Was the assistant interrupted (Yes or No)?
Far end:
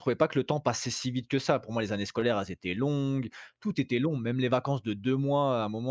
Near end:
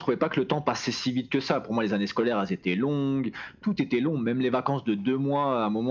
No